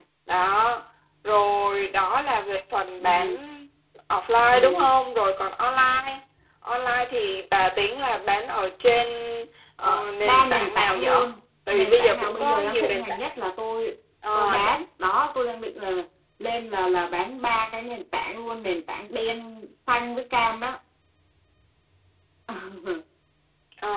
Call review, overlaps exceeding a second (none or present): present